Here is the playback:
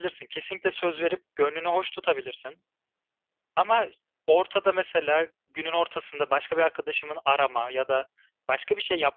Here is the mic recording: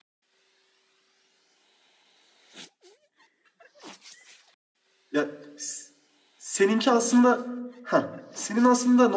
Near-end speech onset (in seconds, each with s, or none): 5.1 s